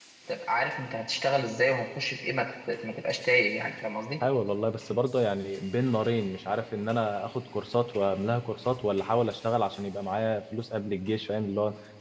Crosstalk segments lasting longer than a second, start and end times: none

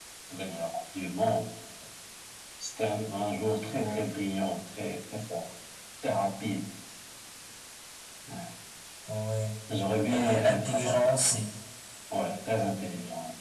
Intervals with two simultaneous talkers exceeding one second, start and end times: 10.1-11.4

